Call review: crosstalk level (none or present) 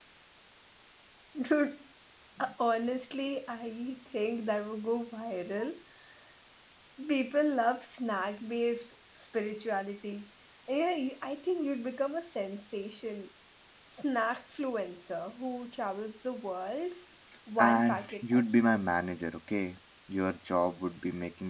present